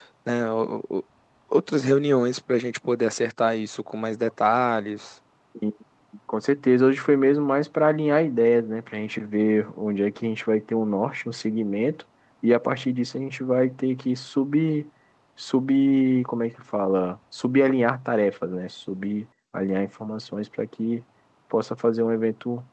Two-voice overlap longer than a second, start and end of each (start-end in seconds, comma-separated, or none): none